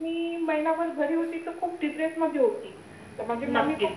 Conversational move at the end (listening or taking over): listening